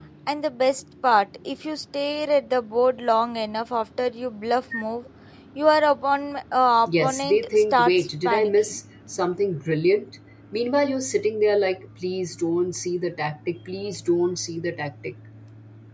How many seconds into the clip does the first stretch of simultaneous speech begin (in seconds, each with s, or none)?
6.9 s